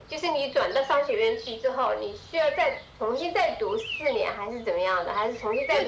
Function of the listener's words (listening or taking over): taking over